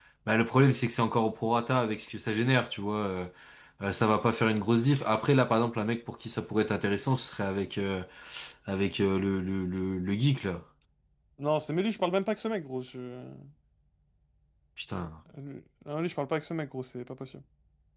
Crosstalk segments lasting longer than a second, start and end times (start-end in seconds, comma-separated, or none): none